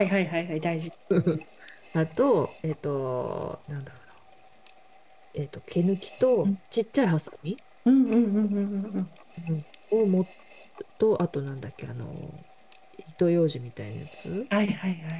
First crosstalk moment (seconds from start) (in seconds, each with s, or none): none